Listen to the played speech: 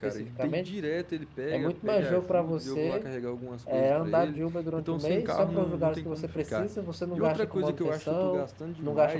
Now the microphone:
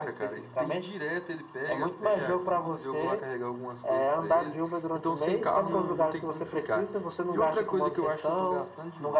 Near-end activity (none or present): none